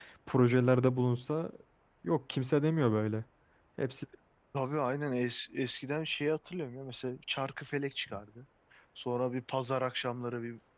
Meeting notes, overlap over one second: none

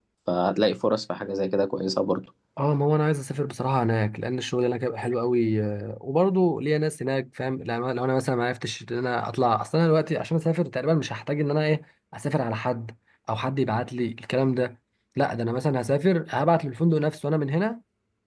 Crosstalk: none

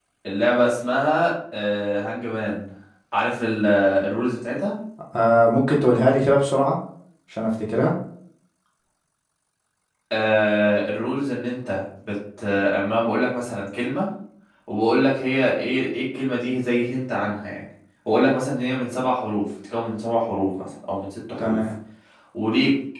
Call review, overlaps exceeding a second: none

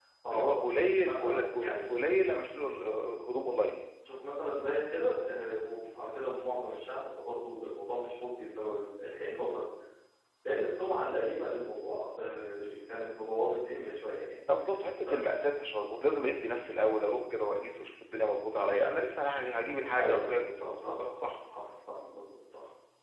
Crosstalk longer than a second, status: present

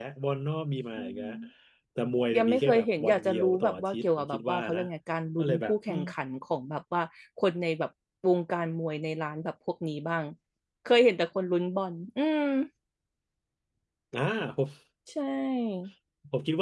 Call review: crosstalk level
present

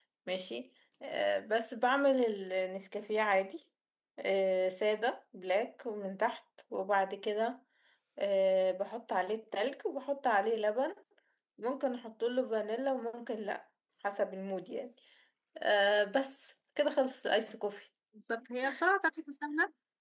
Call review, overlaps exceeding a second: none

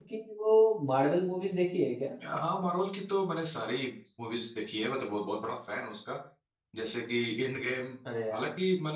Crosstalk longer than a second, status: none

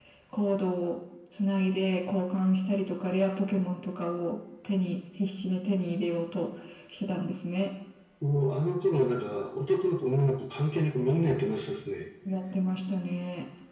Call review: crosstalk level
none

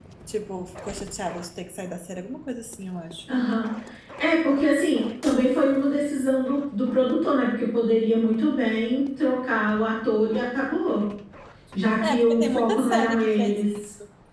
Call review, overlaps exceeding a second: present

